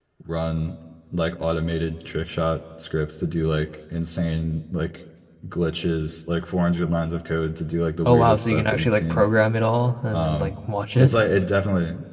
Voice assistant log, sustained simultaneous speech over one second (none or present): present